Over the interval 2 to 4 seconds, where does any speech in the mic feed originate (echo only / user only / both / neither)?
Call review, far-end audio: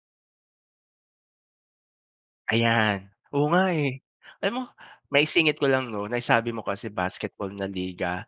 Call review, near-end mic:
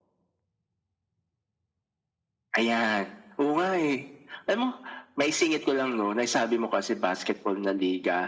echo only